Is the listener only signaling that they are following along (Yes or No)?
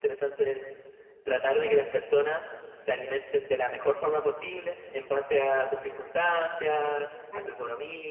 Yes